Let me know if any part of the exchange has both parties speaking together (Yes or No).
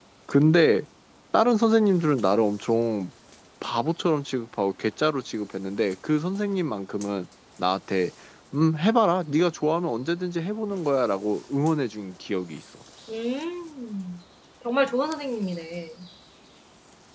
No